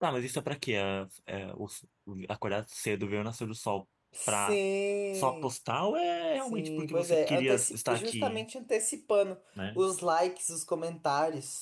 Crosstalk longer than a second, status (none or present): present